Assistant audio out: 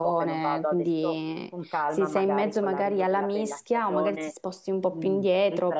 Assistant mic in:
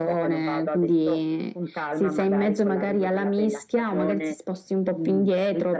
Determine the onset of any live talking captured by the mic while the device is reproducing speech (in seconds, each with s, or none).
none